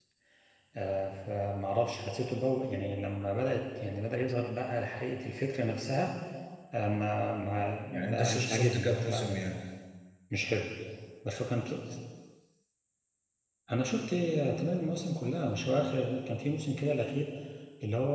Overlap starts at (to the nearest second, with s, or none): 8 s